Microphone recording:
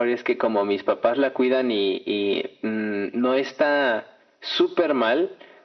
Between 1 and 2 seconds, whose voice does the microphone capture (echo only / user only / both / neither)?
echo only